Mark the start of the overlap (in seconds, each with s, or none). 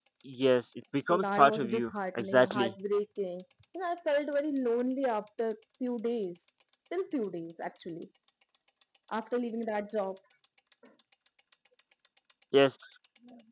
1.0 s